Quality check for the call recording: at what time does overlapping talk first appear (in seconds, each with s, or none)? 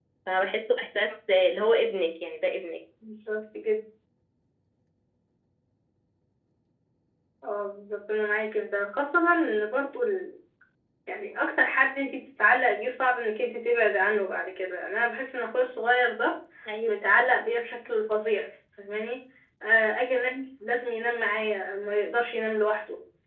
none